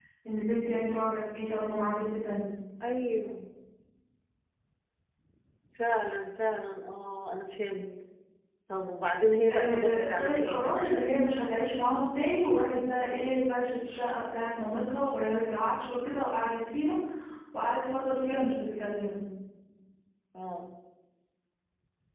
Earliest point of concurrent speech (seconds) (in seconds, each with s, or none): 9.5 s